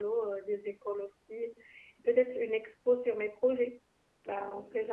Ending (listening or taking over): taking over